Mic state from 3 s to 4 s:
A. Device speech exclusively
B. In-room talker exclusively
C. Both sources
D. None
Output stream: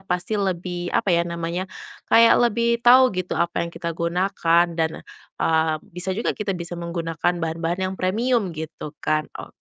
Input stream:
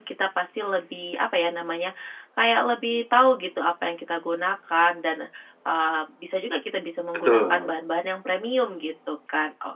A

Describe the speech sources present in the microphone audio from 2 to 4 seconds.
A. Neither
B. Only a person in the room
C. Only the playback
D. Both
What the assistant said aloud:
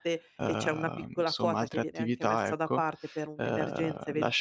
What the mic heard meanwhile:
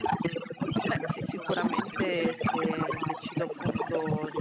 D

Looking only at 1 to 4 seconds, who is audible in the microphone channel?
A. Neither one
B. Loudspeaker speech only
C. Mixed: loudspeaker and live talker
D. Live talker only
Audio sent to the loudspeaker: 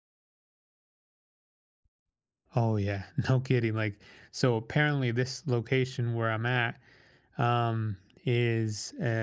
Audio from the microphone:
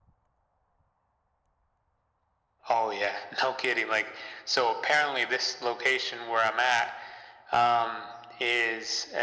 B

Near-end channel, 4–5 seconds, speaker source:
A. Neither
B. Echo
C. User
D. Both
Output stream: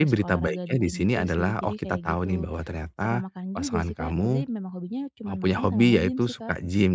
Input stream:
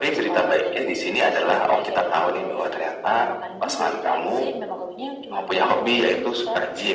B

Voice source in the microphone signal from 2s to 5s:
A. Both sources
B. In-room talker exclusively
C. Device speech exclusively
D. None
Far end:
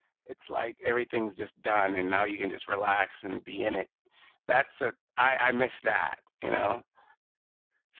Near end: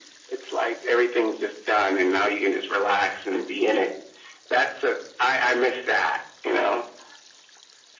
C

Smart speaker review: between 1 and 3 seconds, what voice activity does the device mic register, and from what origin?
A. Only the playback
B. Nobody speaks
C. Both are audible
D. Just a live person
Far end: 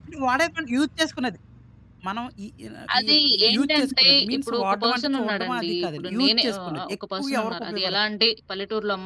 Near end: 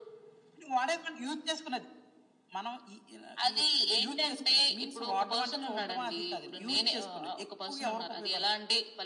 A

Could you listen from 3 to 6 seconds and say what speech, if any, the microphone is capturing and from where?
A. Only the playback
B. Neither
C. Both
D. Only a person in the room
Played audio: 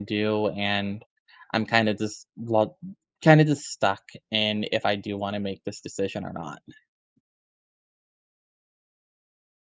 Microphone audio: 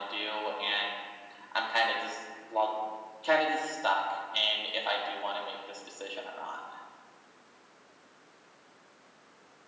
A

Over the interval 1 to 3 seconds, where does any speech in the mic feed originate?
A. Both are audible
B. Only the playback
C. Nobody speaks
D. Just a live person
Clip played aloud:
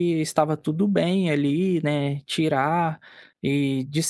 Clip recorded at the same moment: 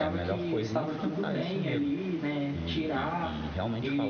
A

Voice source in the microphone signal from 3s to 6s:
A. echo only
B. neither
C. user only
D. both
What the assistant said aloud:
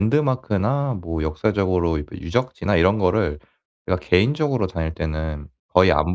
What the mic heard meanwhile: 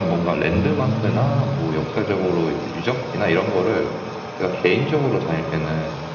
A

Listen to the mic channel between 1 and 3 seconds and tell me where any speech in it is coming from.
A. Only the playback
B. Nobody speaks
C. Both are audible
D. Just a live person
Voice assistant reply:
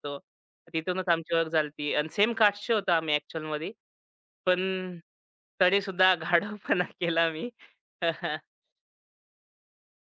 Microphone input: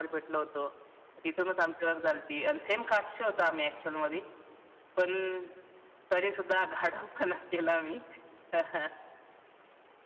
A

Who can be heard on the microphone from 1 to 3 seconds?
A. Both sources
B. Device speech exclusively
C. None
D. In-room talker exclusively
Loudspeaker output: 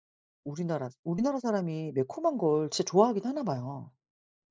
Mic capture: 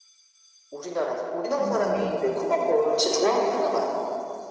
A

